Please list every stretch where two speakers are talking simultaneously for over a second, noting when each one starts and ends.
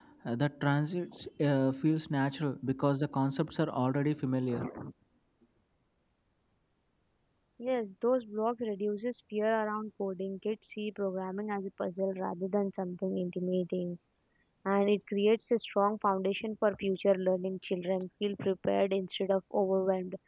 none

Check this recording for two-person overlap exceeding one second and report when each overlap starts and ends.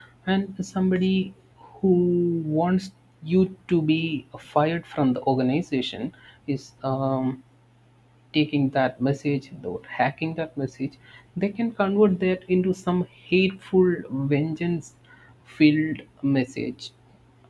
none

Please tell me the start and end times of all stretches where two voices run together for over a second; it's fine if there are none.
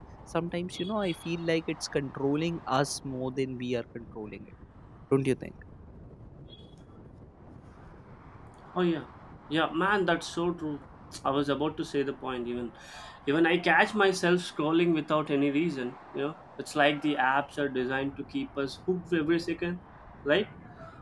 none

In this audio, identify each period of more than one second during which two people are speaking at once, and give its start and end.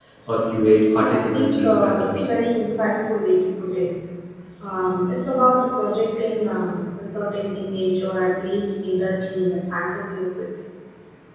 0.9-2.3

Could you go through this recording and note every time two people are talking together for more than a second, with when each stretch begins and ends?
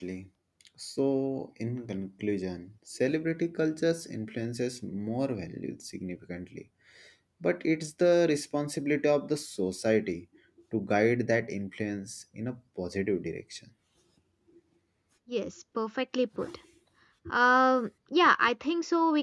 none

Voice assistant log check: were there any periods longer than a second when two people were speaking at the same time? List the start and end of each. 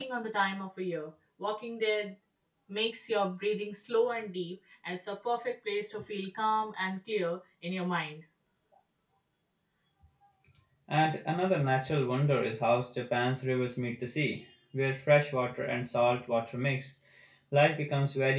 none

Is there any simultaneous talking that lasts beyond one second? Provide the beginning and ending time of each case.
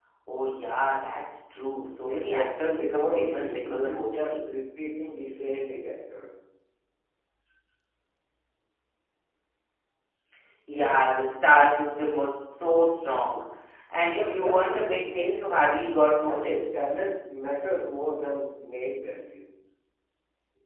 2.0-4.4, 14.1-15.7

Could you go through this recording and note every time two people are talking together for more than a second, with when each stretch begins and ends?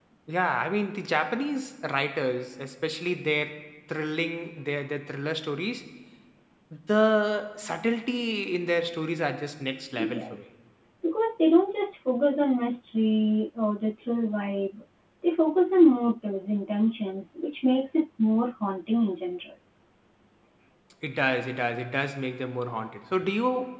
none

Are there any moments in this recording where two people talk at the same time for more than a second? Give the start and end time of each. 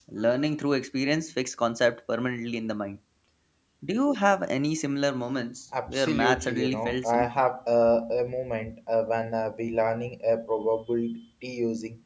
6.0-7.3

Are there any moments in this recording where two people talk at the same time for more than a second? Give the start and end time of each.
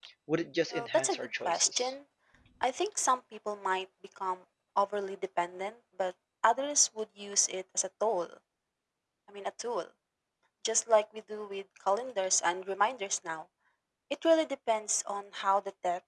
0.7-1.9

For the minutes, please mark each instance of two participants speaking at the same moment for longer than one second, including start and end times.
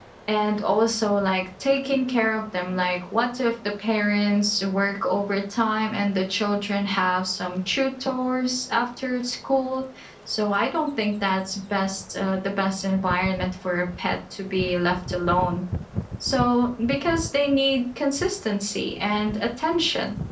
none

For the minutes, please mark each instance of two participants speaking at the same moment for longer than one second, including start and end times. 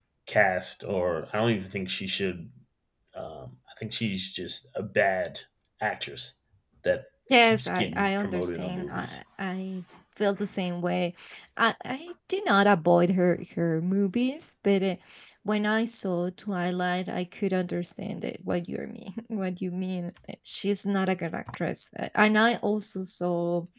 7.4-9.2

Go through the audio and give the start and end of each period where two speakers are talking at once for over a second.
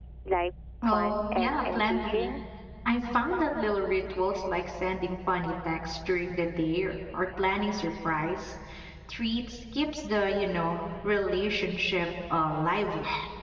0.8-2.3

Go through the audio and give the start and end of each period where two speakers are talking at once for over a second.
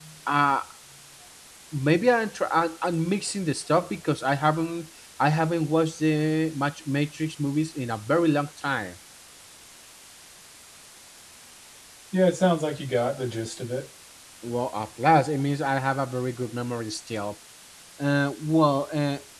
none

